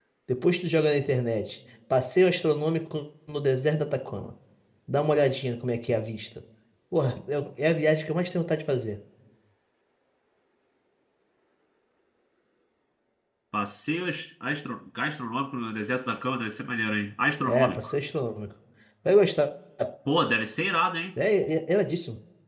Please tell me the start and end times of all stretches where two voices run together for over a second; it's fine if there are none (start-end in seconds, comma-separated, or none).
none